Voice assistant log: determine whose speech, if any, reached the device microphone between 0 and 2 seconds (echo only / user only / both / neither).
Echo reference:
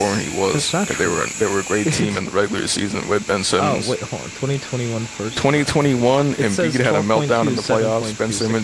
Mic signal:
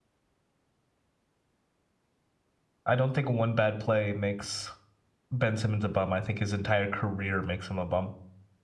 neither